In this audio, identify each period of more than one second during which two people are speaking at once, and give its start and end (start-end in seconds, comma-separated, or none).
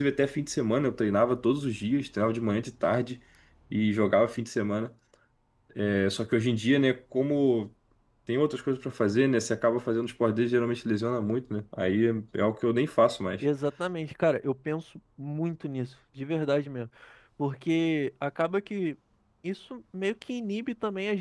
none